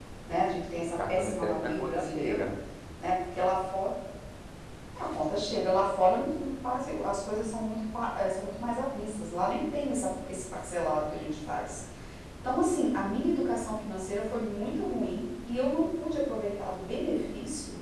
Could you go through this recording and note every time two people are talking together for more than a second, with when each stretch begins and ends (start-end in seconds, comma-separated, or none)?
1.1-2.4